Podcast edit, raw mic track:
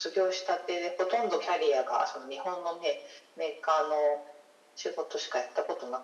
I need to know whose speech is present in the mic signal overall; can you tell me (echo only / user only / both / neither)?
echo only